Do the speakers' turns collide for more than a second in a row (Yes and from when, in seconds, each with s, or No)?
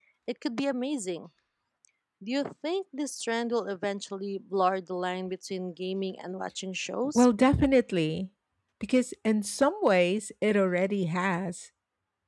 No